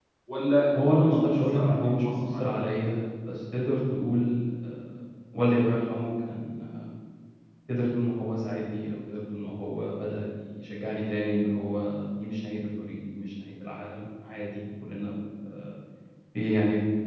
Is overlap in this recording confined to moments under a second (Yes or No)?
No